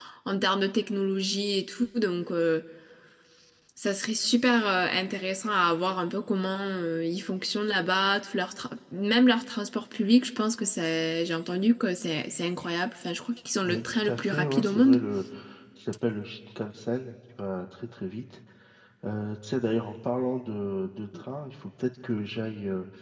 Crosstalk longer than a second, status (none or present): present